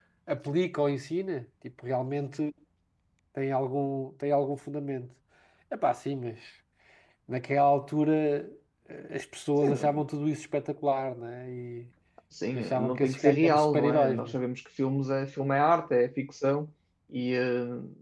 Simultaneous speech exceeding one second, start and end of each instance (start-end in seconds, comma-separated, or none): 12.6-14.4